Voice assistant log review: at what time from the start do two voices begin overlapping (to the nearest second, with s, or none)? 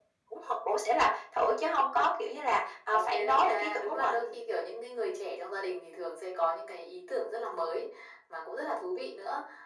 3 s